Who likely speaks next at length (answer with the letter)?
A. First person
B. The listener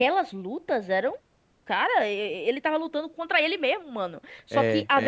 A